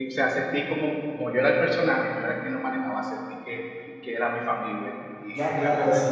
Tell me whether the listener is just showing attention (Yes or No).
No